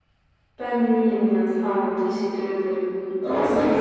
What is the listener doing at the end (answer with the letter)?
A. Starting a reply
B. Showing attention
A